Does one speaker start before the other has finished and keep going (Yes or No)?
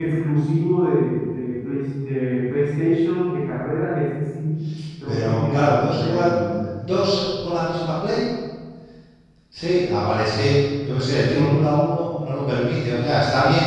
Yes